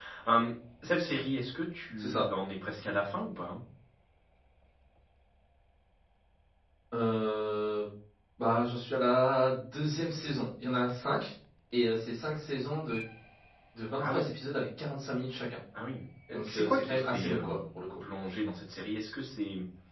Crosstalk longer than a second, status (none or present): present